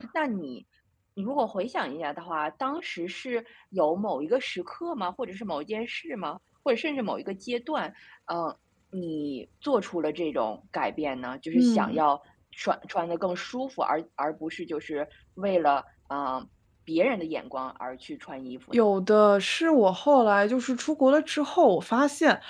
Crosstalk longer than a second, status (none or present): none